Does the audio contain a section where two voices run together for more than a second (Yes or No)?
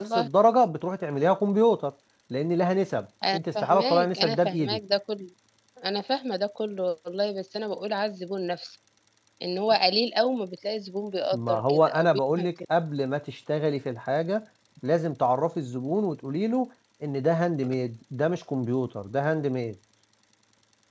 Yes